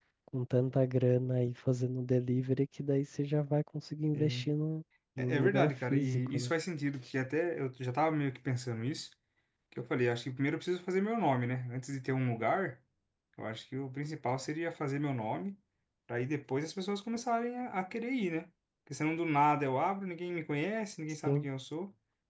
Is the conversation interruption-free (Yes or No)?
No